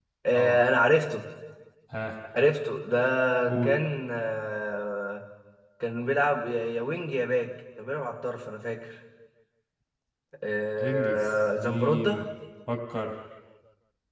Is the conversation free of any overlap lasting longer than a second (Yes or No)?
No